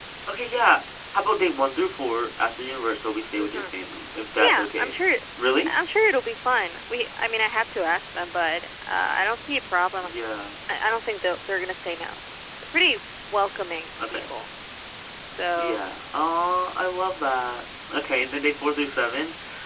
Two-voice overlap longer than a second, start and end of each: none

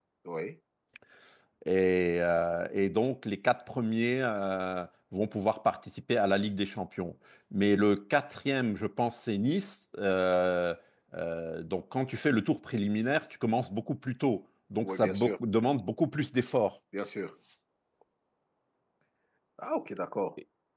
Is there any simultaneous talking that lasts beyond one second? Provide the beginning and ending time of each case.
none

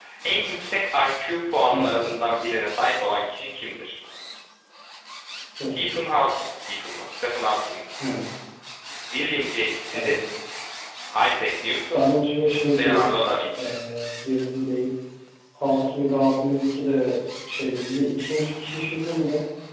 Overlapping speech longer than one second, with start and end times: none

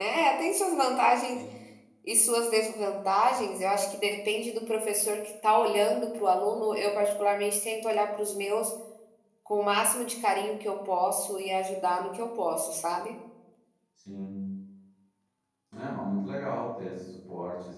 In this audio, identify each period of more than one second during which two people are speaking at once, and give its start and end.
none

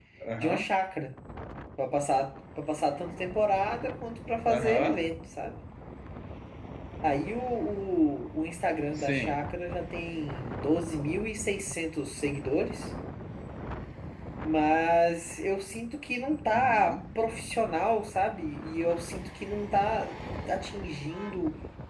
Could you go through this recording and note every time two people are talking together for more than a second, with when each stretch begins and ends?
none

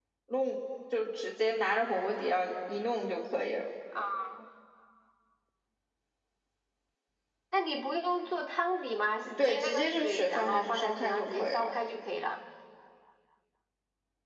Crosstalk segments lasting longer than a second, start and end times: 9.4-11.7

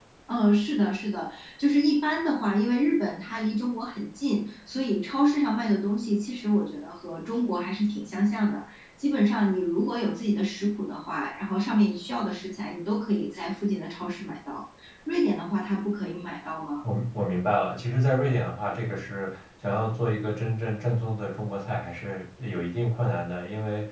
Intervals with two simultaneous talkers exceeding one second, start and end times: none

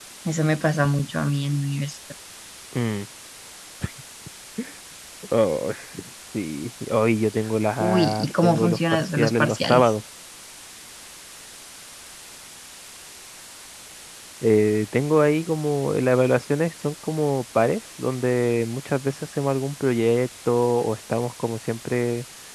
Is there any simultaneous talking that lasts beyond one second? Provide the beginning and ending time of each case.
7.8-9.9

